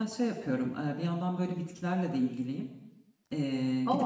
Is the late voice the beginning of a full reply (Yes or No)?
No